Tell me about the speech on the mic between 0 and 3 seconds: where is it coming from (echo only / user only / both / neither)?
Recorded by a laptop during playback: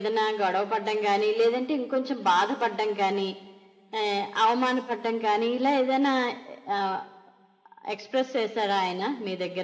echo only